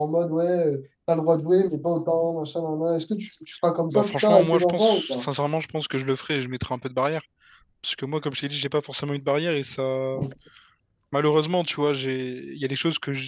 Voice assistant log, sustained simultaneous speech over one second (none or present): present